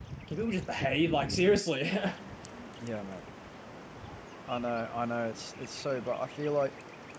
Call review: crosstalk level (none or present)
none